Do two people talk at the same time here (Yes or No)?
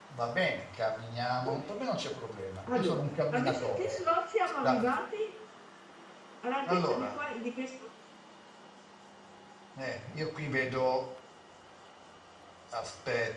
Yes